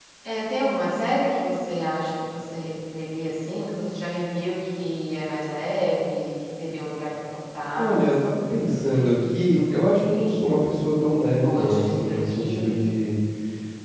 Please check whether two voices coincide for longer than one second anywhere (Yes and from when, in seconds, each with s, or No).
Yes, from 7.8 s